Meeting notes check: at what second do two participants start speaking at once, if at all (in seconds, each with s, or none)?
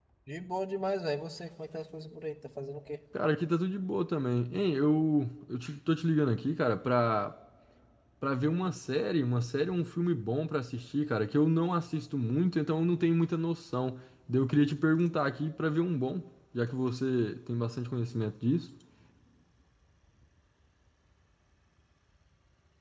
none